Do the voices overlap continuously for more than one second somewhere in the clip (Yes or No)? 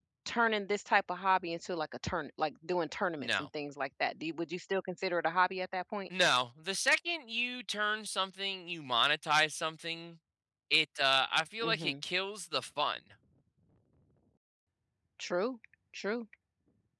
No